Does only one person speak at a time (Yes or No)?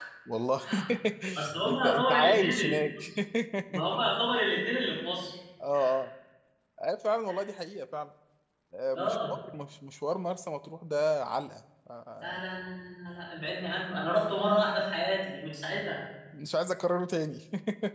No